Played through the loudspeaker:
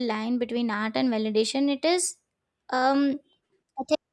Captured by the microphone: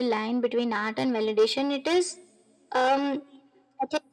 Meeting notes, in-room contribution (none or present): none